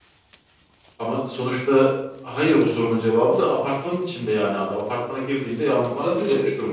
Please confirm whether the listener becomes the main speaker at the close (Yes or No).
Yes